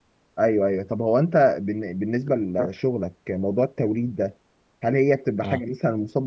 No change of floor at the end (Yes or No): Yes